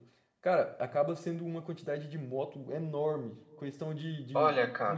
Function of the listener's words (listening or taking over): listening